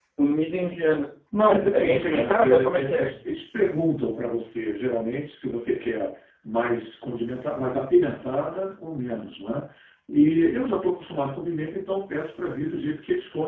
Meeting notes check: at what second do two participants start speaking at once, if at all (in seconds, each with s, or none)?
1.4 s